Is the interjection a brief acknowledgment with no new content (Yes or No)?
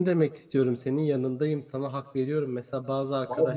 Yes